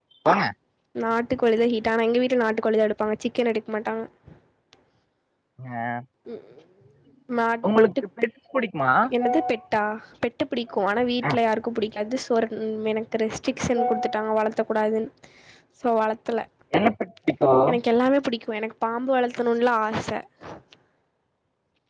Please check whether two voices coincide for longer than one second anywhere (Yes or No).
No